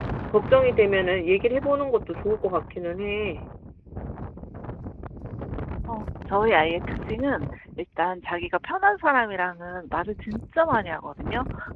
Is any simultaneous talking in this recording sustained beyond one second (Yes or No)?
No